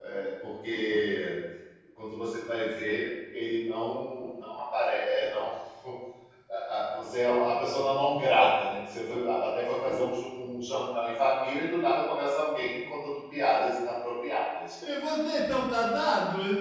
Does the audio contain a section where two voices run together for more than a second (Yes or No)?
No